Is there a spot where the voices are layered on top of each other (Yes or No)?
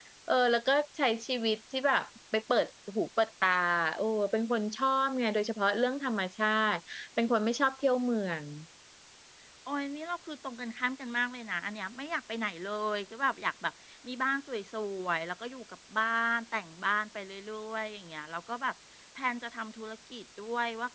No